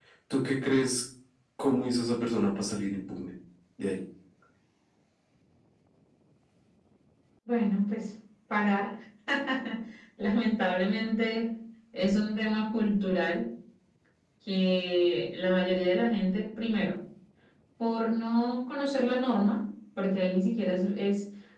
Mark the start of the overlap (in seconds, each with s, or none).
none